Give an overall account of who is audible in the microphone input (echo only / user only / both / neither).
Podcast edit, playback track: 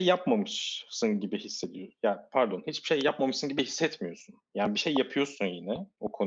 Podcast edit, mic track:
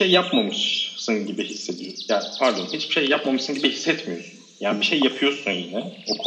echo only